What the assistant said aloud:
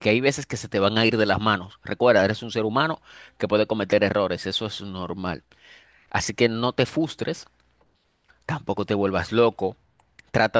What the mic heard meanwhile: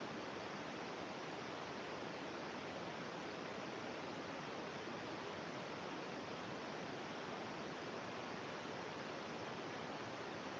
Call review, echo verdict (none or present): none